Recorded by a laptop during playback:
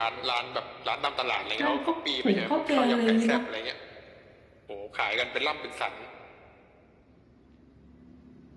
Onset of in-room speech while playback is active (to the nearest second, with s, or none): 2 s